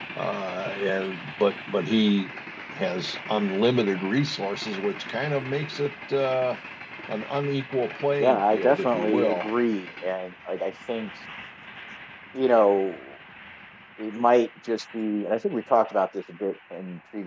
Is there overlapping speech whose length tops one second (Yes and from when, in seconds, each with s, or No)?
Yes, from 8.2 s